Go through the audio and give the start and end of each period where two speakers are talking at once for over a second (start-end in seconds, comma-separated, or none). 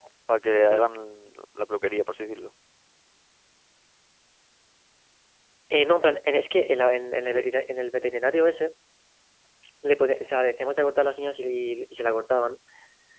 none